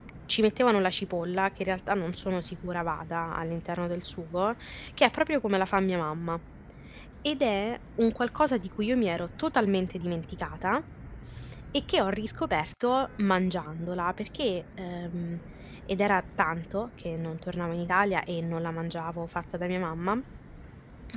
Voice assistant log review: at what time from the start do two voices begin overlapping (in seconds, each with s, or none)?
none